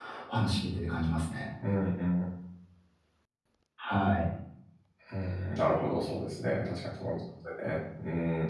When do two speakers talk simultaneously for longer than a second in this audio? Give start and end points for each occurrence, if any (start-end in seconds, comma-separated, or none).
none